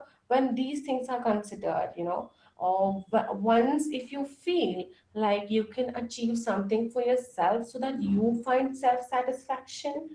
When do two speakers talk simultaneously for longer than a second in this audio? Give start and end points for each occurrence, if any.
none

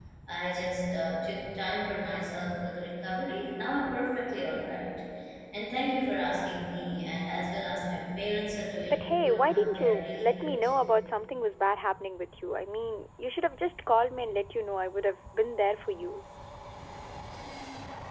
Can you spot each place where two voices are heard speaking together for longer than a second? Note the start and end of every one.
8.8-10.7

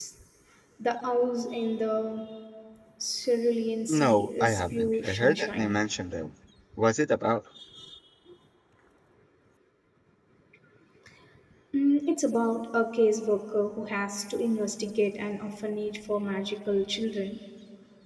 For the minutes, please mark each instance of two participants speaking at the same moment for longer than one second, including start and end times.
3.9-5.8

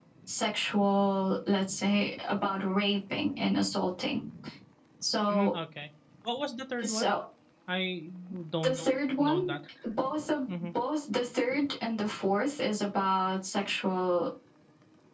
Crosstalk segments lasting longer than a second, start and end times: none

